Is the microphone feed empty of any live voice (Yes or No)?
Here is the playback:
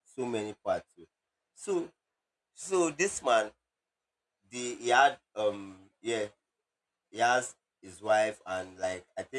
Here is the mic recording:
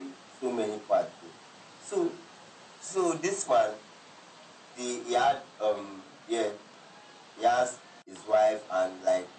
Yes